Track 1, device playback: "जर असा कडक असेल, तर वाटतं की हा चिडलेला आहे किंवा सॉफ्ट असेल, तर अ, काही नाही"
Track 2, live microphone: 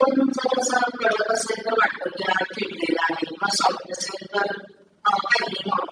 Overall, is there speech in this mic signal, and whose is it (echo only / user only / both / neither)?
echo only